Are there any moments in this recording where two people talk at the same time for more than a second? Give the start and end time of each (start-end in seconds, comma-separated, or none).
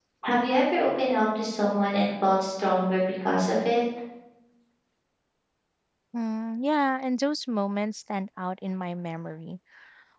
none